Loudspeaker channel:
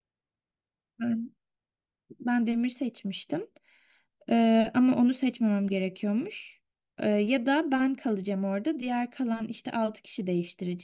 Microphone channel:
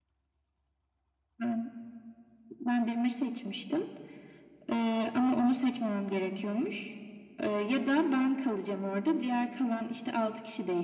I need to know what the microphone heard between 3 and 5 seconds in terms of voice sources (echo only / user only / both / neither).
echo only